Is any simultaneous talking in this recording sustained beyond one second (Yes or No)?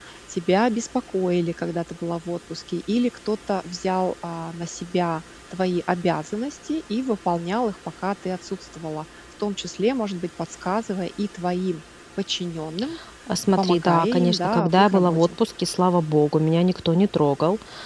Yes